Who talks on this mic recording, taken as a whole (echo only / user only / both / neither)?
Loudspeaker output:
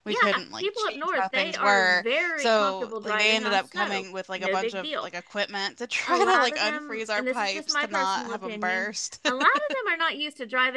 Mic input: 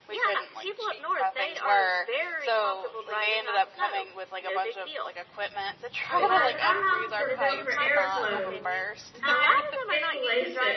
both